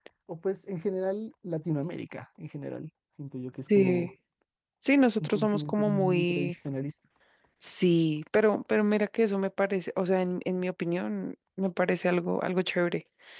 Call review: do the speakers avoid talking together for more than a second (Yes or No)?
No